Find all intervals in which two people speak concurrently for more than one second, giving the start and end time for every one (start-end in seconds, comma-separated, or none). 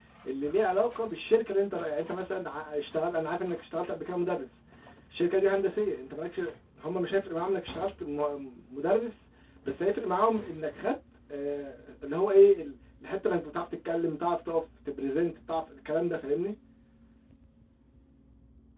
none